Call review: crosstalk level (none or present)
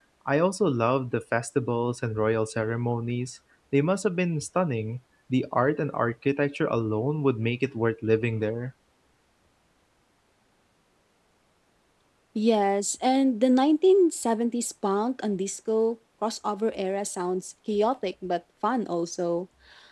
none